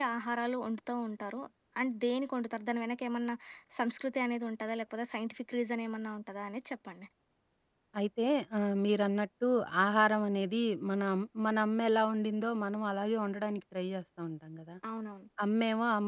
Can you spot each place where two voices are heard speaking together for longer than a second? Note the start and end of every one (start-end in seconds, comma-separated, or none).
none